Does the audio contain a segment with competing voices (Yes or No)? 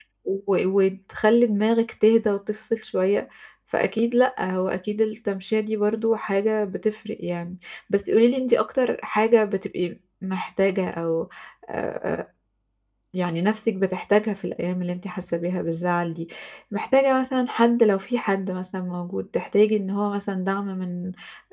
No